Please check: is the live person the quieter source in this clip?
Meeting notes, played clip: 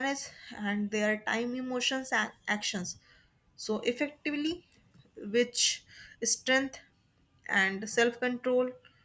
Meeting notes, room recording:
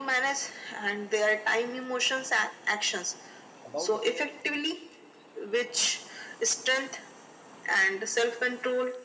Yes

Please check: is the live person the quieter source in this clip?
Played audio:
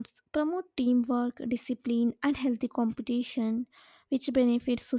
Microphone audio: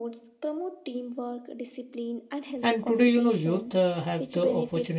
No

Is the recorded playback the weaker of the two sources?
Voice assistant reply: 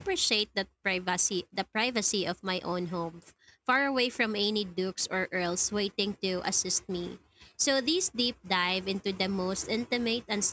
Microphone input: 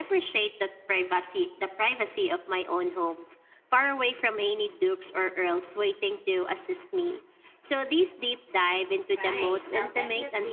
No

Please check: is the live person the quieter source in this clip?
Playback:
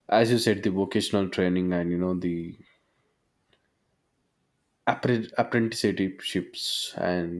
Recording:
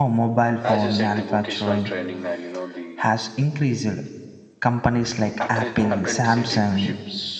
No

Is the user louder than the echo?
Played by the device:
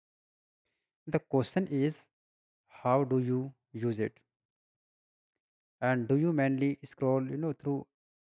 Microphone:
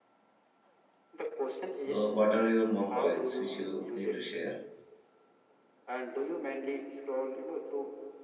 Yes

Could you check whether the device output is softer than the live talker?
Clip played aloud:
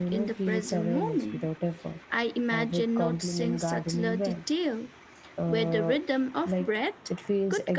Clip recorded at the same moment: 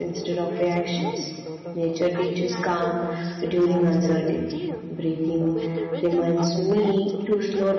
Yes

